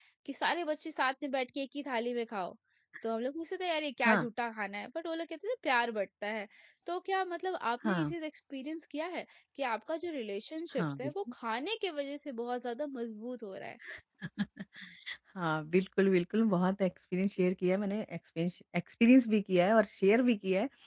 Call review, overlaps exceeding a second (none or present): none